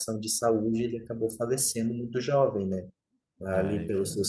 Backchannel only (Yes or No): Yes